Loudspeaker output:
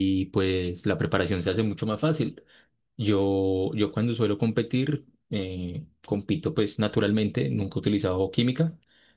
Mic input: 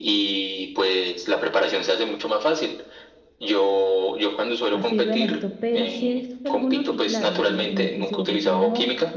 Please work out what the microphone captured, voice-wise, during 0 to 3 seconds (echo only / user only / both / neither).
echo only